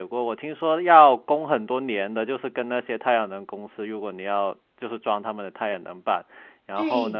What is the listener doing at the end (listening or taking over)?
taking over